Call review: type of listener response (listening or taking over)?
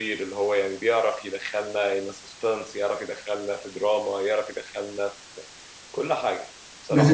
taking over